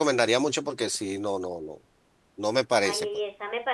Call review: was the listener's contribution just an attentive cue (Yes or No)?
No